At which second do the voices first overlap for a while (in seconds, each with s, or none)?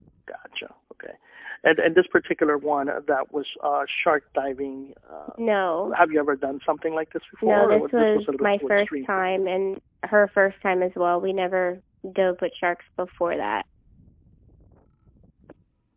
7.4 s